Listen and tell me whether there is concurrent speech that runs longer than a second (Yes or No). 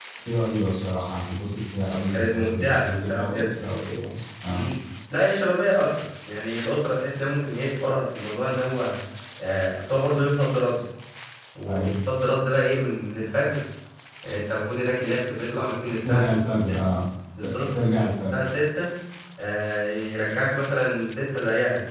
Yes